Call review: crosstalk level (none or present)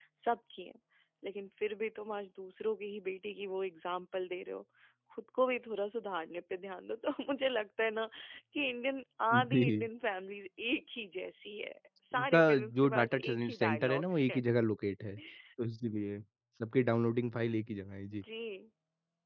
present